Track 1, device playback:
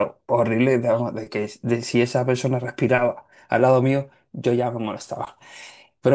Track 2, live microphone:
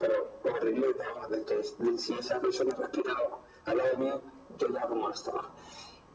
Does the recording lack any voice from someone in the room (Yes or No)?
Yes